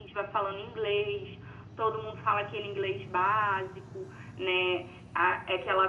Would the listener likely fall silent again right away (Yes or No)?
Yes